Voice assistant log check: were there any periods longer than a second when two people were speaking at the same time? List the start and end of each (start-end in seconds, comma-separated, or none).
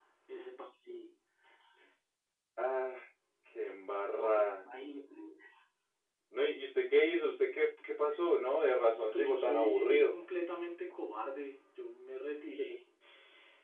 8.9-10.2